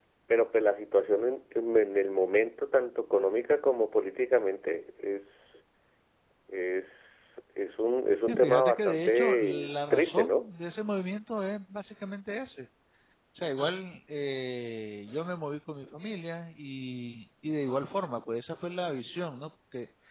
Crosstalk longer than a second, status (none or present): present